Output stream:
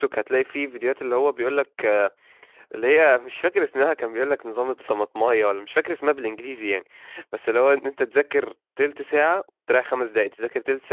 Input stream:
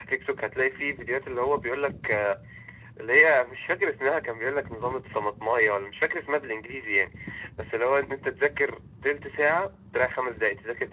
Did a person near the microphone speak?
No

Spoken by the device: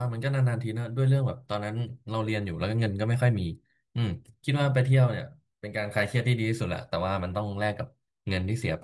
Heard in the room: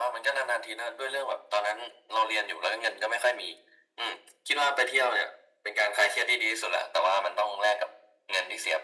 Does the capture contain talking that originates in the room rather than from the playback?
No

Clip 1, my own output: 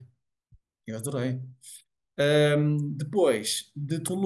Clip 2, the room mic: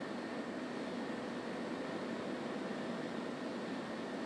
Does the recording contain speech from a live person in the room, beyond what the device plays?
No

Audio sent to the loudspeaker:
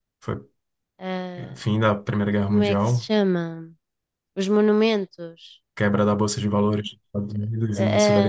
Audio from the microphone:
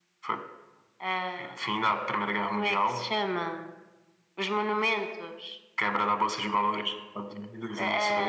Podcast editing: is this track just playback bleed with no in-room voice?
Yes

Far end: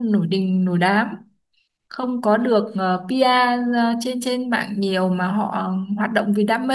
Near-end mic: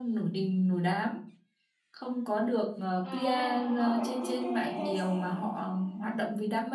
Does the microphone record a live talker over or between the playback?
Yes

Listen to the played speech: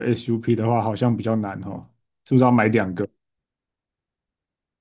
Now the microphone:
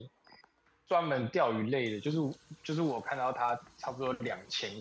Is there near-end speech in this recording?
Yes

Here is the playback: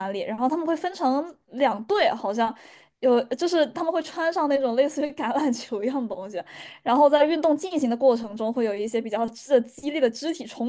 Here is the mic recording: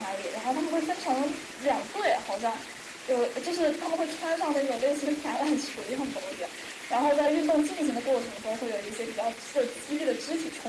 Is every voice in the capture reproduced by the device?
Yes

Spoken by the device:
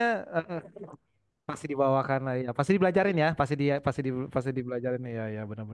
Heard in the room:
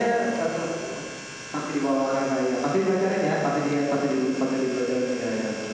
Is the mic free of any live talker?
Yes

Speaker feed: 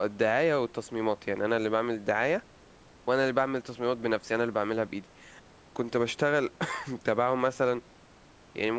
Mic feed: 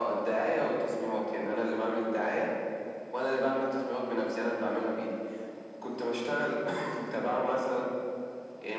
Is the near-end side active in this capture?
No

